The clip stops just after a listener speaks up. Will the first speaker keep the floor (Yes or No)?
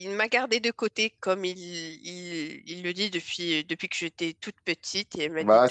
No